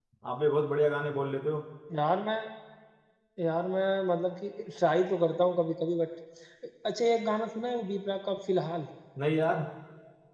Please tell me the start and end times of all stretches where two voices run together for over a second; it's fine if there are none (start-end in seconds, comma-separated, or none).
none